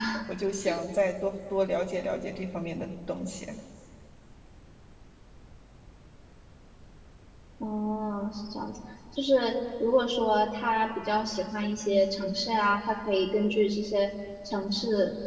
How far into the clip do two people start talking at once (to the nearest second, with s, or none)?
none